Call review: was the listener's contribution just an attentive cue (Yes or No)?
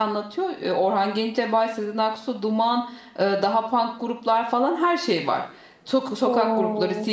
Yes